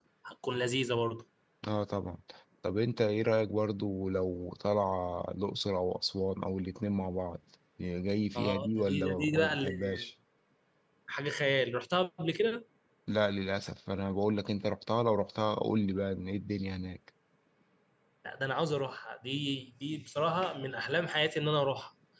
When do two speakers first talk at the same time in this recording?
8 s

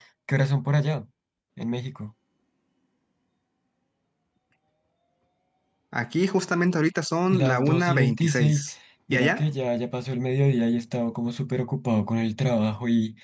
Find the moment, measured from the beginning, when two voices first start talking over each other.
7 s

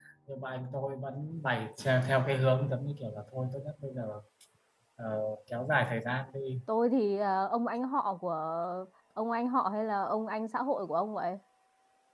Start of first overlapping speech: none

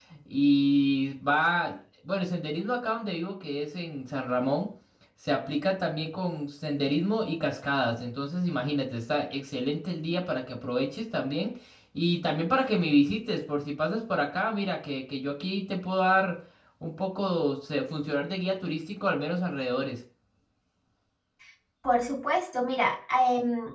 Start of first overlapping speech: none

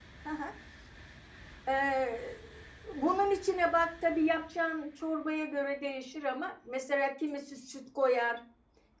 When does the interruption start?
none

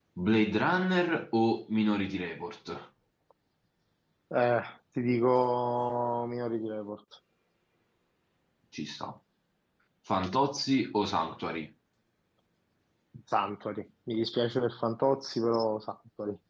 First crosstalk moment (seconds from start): none

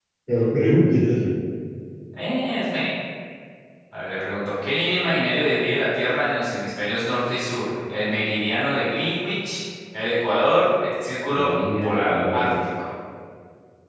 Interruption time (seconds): 11 s

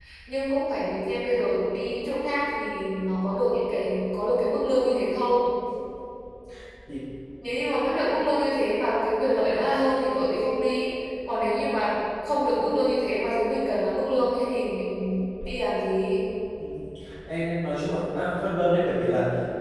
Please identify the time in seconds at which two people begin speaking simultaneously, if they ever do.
none

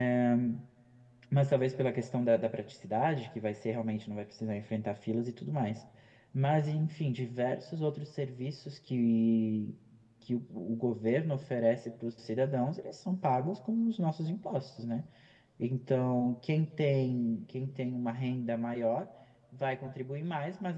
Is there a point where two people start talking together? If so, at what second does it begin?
none

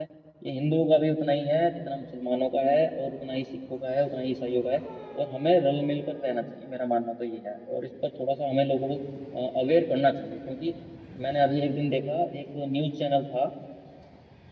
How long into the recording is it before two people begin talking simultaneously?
none

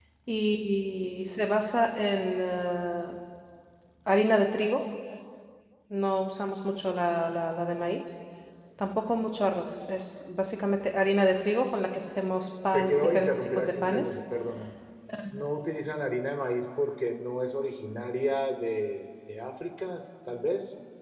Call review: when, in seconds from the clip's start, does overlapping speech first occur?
13 s

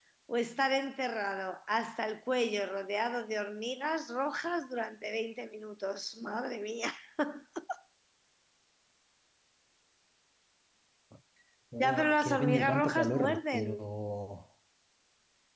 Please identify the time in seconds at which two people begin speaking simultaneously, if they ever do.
12 s

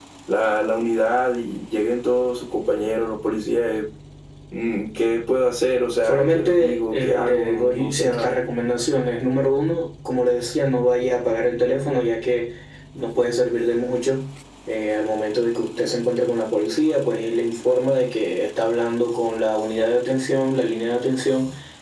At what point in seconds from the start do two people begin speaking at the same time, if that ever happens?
6 s

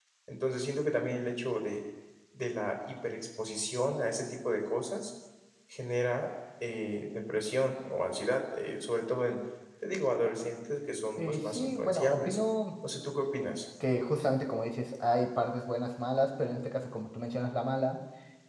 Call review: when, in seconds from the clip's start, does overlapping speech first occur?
11 s

